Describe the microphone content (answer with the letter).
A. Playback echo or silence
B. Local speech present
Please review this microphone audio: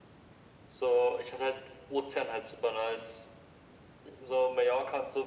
A